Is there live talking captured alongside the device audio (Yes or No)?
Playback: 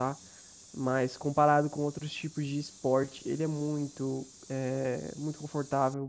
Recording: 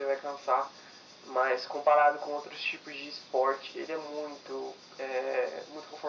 No